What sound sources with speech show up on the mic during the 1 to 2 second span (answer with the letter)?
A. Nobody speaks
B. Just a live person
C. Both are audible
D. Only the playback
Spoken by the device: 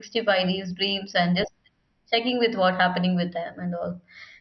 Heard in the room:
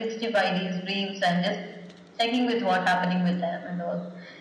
D